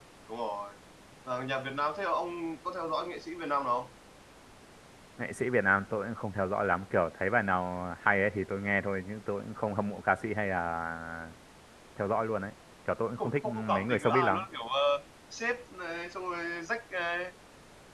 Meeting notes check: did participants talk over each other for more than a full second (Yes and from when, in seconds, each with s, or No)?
Yes, from 13.2 s